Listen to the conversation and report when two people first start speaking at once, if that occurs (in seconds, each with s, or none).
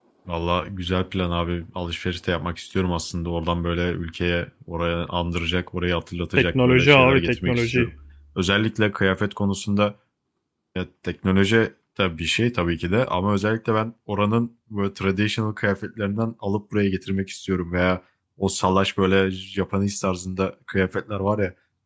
6.4 s